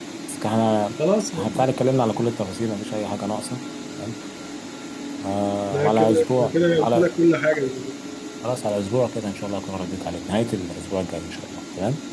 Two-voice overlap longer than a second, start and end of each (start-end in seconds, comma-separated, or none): 5.7-7.2